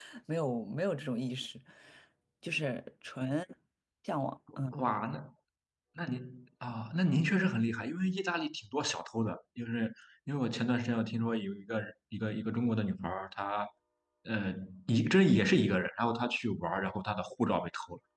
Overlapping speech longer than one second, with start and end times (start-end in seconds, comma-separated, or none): none